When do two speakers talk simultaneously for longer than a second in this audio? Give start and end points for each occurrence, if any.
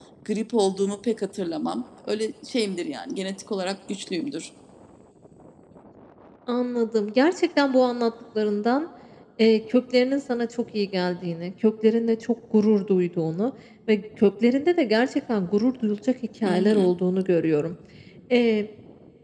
none

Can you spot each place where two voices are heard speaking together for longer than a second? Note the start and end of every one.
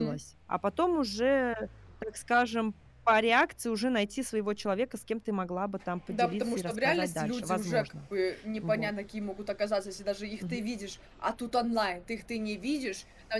6.1-7.9

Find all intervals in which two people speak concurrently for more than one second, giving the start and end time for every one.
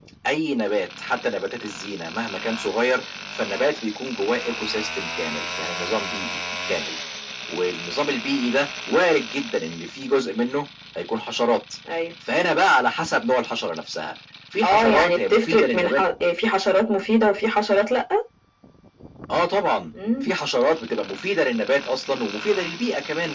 14.6-16.0

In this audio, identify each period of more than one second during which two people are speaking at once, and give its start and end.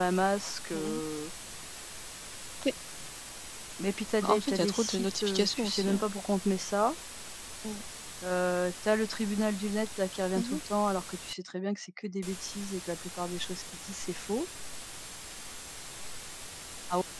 4.2-6.0

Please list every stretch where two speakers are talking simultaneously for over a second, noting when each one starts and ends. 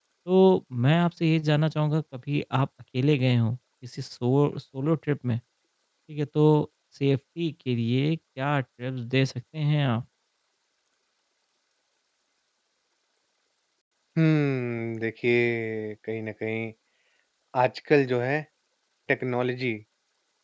none

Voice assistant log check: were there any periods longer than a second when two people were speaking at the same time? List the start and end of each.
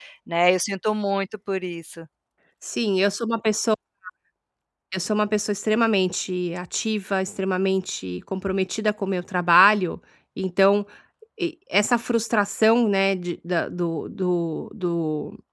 none

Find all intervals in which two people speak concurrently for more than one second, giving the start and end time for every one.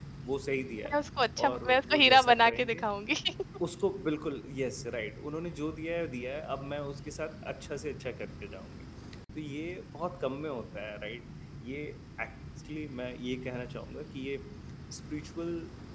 1.5-2.8

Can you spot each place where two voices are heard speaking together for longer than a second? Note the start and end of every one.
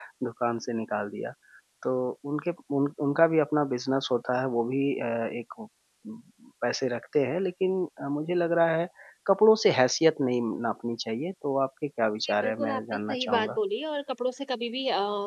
12.2-13.6

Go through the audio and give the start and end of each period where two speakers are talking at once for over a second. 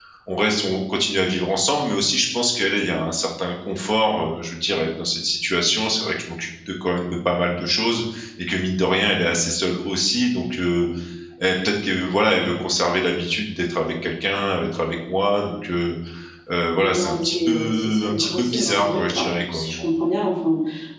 16.8-19.8

